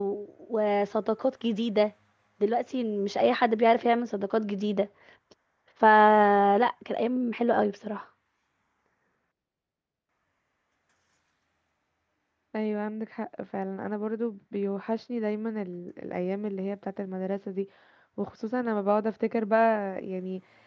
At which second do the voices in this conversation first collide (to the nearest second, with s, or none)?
none